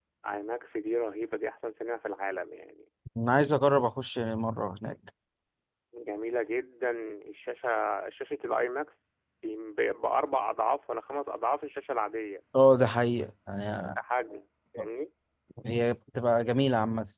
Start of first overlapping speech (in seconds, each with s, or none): none